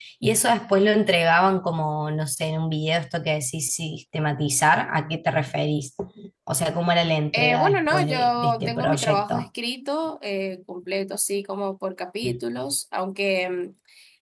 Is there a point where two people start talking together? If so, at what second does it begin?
7 s

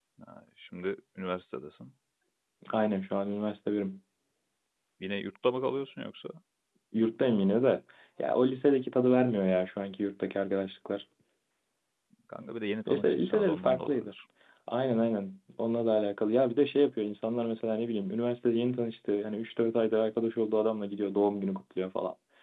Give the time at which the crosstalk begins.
13 s

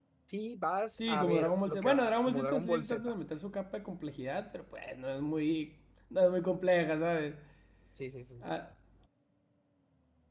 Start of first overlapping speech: 1 s

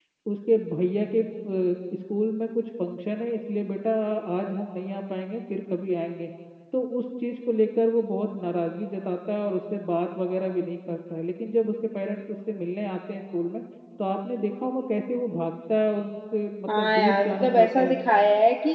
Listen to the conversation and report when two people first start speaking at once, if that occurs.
17 s

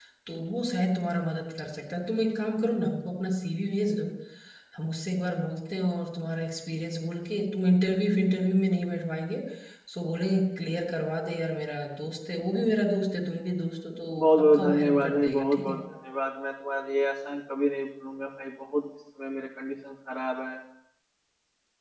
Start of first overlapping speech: 14 s

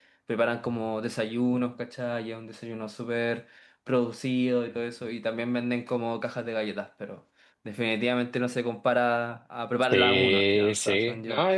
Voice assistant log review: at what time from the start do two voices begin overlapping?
10 s

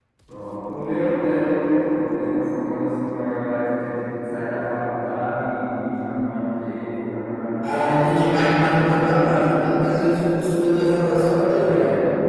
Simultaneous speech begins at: 8 s

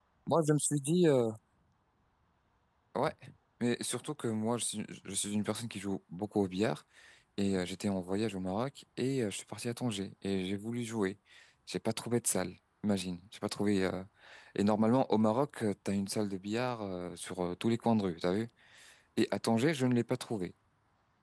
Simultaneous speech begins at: none

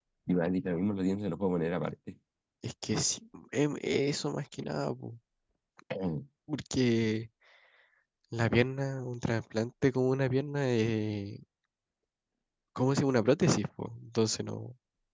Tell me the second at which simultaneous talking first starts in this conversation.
none

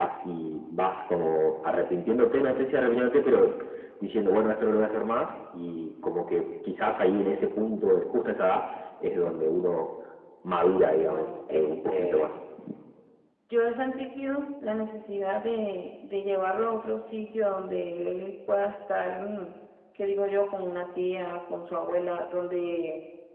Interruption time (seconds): 11 s

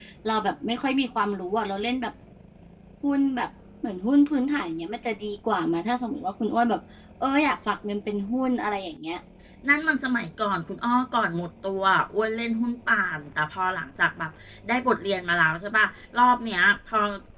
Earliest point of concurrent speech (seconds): none

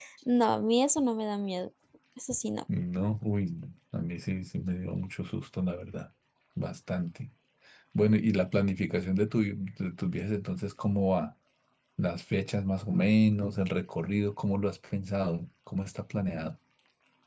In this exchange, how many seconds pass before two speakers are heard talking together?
none

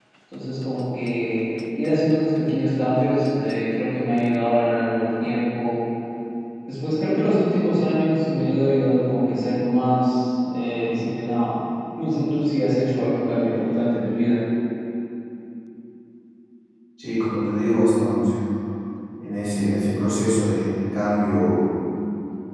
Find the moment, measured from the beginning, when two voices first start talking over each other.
none

